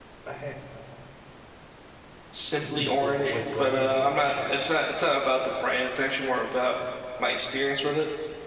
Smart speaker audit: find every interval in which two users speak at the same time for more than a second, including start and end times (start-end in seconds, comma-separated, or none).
2.6-4.7